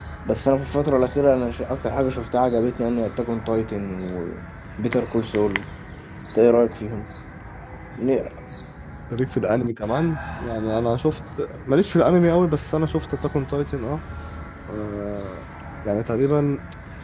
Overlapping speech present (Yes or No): No